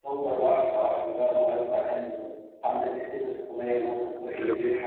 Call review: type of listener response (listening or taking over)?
taking over